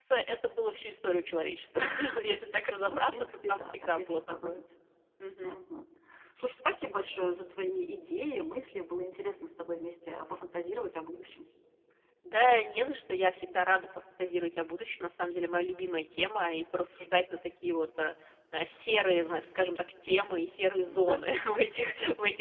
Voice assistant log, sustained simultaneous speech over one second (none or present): present